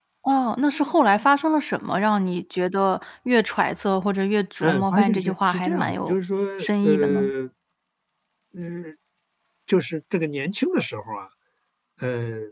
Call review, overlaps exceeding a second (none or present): present